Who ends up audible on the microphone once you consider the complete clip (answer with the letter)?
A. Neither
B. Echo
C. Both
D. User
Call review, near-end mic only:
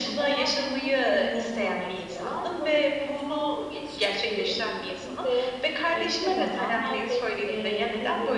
B